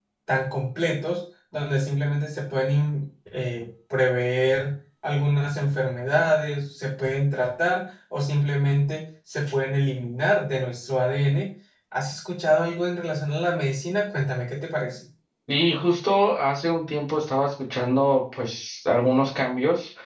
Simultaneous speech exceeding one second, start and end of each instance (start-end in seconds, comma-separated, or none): none